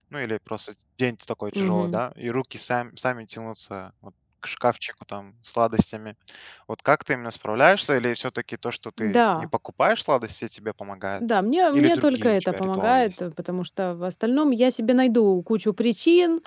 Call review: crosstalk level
present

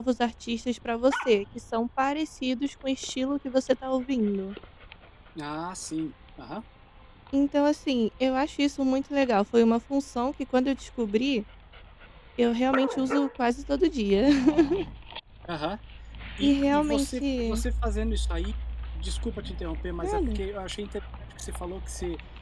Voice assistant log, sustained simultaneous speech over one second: present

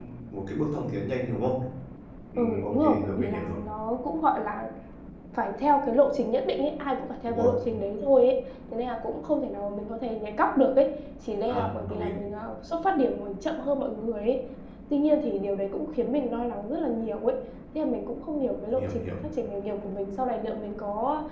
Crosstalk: present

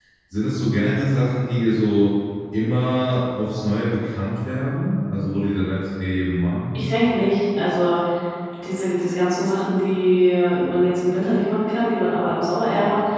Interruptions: none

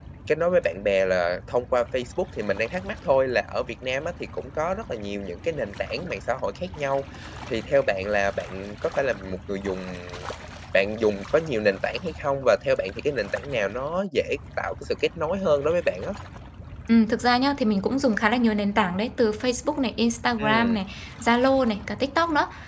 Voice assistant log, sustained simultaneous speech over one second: none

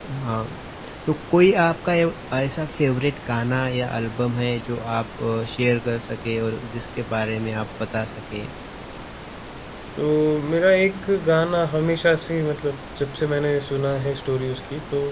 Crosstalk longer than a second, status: none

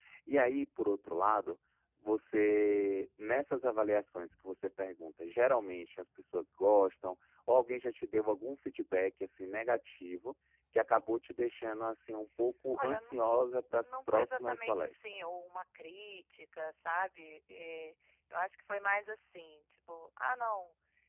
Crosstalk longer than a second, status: present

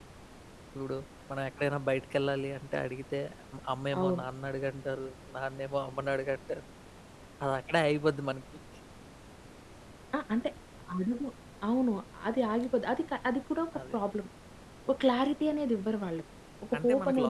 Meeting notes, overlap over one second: none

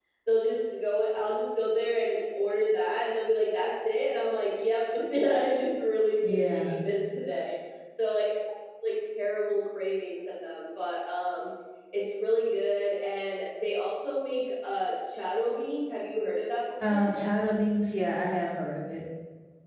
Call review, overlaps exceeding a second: none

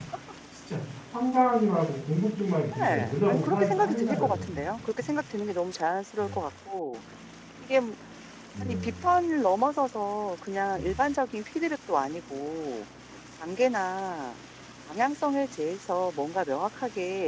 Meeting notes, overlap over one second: present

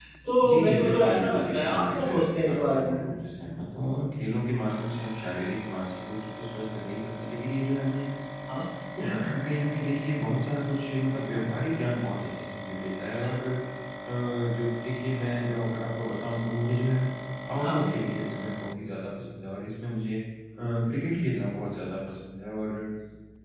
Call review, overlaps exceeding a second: present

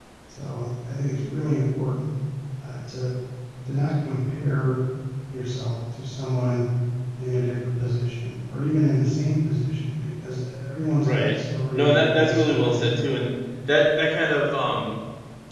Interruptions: present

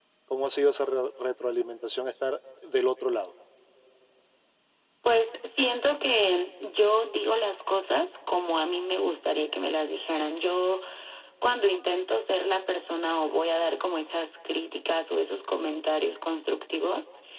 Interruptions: none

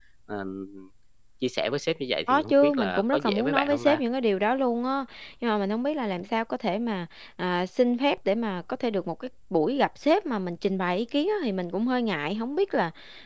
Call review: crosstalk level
present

